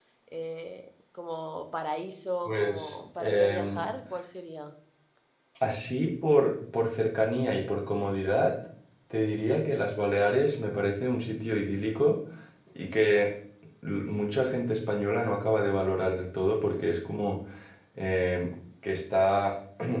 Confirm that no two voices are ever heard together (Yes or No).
No